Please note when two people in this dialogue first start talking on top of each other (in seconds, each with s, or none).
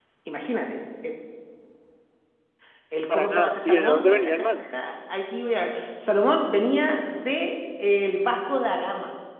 3.1 s